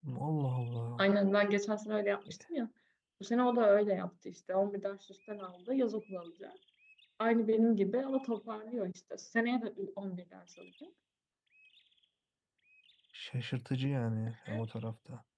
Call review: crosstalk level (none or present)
none